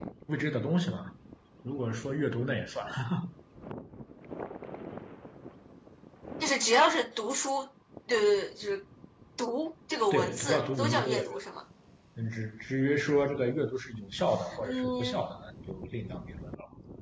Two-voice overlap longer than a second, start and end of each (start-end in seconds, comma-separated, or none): 10.1-11.4